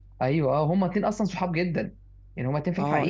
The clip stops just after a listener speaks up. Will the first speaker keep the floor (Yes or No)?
No